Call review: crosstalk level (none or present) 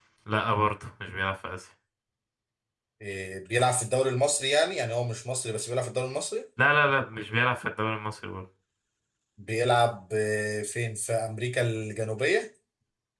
none